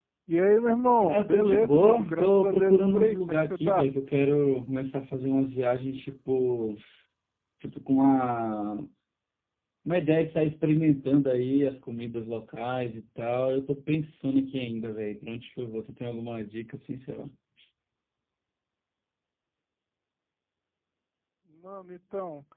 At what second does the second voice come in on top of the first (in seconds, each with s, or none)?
1.1 s